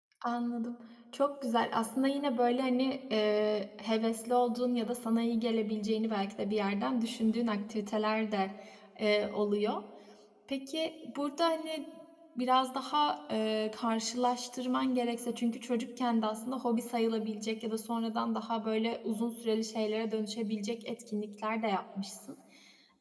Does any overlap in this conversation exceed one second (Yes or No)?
No